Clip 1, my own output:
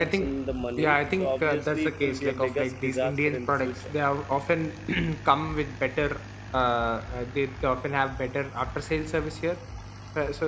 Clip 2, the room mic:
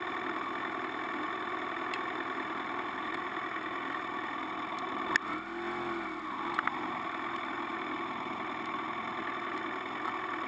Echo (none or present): none